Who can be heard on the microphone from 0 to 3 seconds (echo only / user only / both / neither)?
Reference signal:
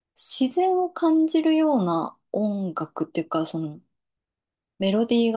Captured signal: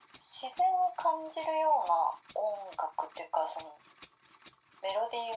echo only